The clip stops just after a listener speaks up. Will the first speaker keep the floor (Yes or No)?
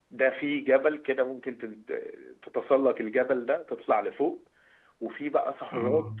Yes